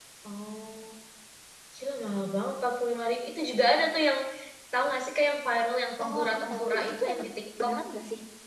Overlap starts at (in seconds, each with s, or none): 6.0 s